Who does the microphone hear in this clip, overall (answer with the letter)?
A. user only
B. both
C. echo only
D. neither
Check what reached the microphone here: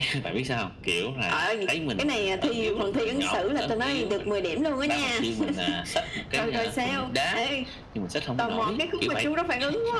C